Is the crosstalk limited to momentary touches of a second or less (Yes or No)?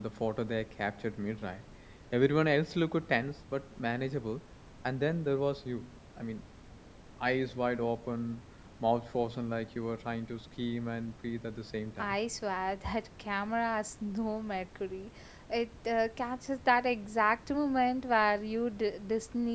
Yes